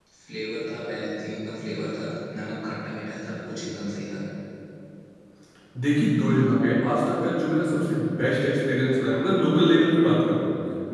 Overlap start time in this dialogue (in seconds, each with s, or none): none